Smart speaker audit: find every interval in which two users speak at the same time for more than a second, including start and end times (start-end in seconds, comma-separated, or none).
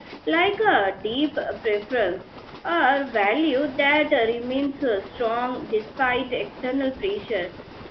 none